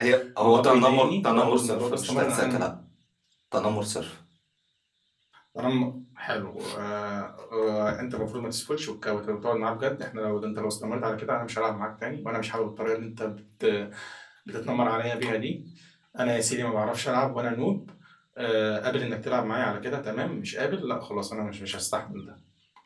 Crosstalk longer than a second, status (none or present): present